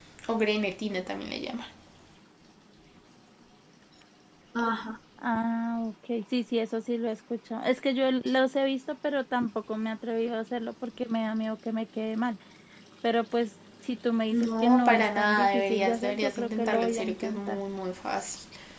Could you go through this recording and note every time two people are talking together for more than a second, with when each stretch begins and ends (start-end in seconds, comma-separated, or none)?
14.3-17.6